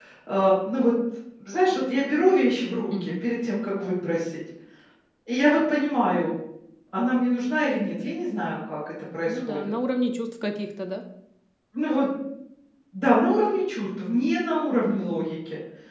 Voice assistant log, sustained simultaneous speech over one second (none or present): none